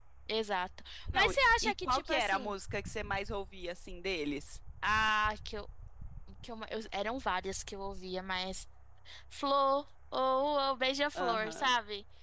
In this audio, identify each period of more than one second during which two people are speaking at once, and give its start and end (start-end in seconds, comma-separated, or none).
1.1-2.5